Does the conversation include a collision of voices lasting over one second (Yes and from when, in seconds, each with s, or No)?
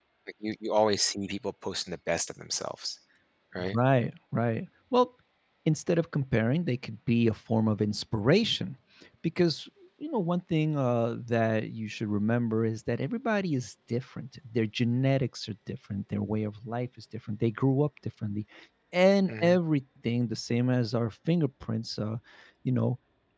No